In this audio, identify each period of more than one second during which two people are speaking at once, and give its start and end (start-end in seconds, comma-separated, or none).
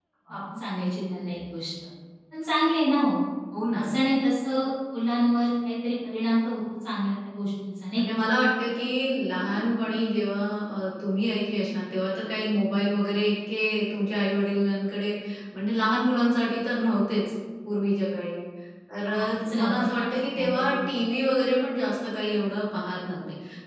19.0-20.7